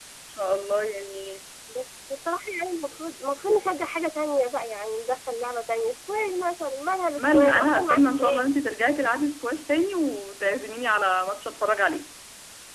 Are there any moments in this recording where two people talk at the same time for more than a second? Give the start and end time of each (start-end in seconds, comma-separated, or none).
7.2-8.4